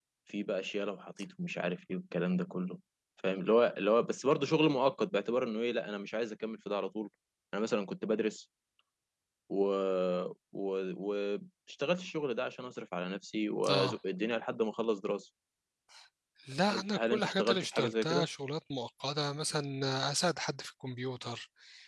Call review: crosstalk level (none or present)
present